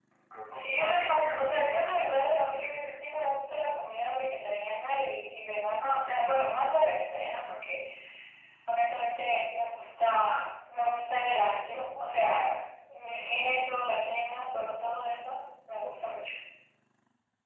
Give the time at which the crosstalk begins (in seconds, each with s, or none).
0.5 s